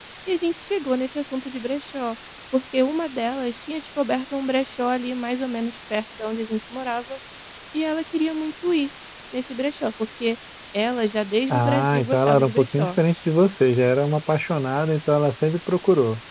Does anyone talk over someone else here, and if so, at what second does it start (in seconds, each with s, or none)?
11.5 s